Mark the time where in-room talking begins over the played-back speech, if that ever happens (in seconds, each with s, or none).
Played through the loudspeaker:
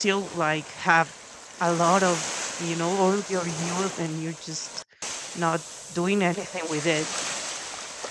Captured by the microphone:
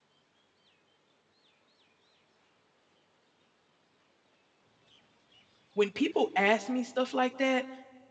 5.7 s